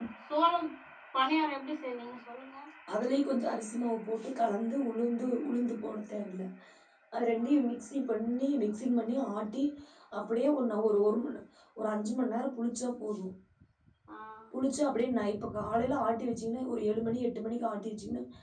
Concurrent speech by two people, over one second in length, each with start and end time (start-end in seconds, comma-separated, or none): none